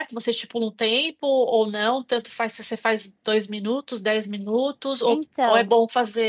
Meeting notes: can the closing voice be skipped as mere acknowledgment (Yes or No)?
Yes